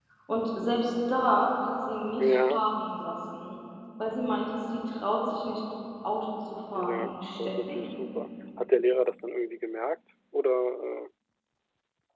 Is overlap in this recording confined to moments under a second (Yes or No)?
No